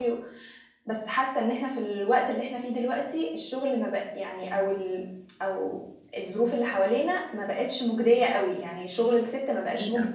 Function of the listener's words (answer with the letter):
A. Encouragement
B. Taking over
A